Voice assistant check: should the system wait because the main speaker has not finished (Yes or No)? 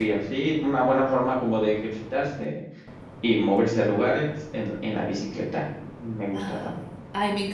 No